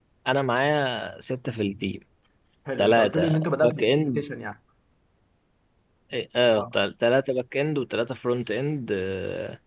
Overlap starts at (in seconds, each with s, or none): 2.8 s